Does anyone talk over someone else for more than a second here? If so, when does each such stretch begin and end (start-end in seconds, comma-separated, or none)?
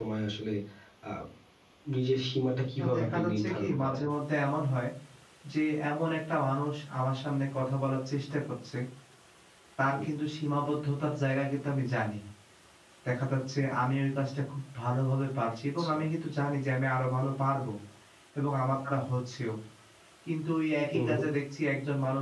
2.8-4.0